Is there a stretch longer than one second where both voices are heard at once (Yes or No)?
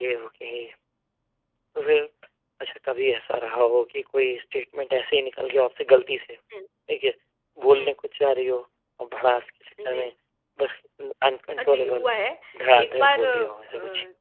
Yes